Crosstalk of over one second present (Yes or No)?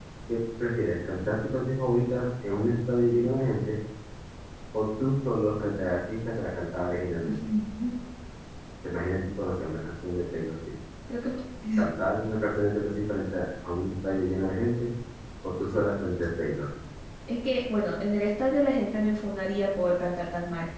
No